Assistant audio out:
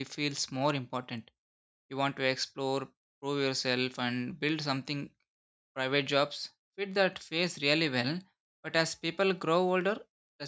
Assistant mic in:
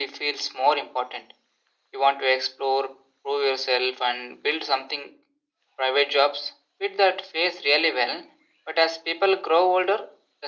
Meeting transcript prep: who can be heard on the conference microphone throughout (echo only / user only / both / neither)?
echo only